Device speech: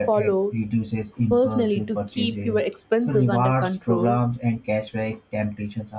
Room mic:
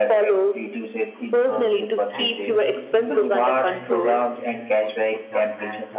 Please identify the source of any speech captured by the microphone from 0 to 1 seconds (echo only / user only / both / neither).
echo only